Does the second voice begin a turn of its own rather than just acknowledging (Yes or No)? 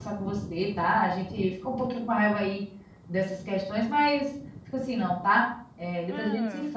Yes